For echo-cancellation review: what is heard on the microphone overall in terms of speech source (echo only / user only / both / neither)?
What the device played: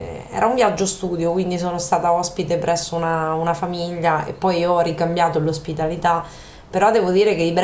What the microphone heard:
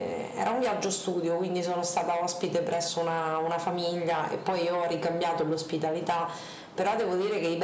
echo only